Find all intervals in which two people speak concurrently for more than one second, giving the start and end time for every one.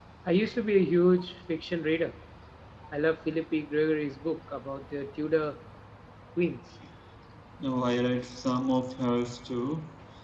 none

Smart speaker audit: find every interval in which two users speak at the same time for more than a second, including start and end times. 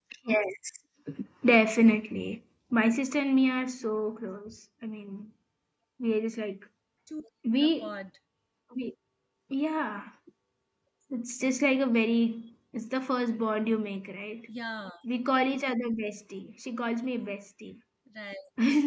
none

